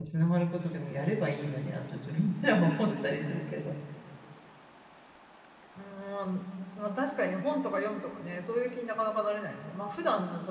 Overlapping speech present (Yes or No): No